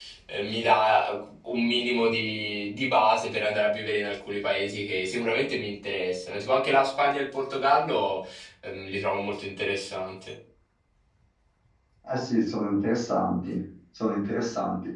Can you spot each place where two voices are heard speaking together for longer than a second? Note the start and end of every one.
none

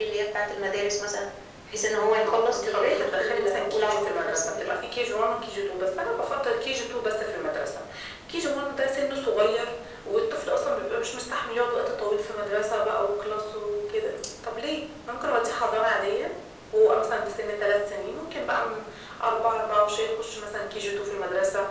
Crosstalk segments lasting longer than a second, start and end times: 2.2-4.8

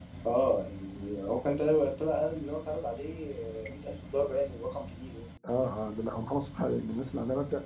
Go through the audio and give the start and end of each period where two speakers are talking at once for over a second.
none

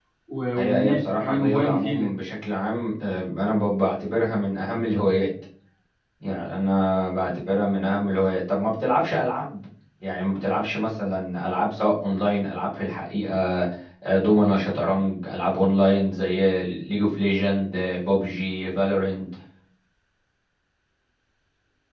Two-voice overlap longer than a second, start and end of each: 0.5-2.1

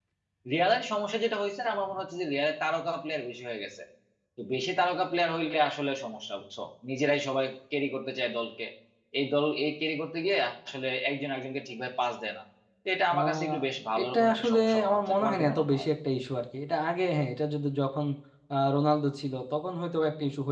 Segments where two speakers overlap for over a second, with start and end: 14.0-15.9

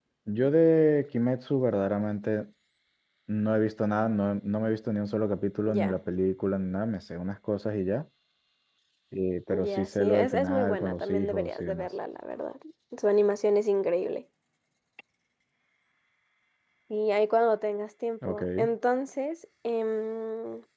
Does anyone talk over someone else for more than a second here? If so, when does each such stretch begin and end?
9.5-11.9

